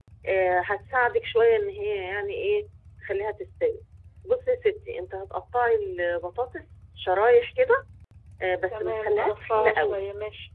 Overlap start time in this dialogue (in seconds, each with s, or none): 8.7 s